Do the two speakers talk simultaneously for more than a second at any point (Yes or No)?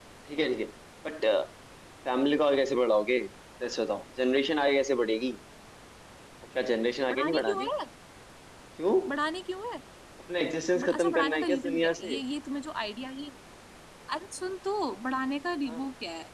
Yes